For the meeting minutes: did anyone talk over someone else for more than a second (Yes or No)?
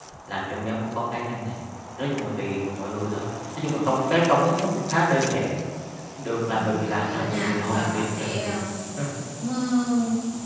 Yes